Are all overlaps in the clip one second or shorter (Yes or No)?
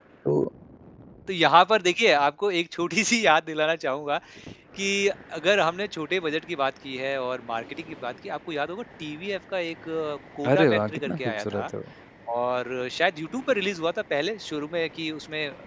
No